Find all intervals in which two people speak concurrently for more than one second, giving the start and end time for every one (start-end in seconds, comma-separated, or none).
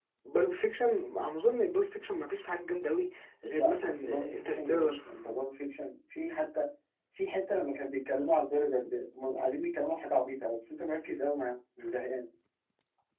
3.5-5.0